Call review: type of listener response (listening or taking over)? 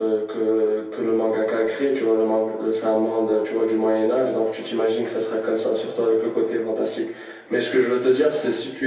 listening